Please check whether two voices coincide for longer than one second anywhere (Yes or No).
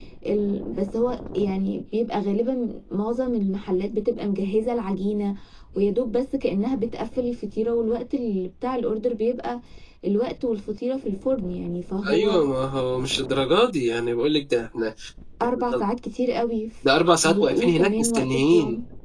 Yes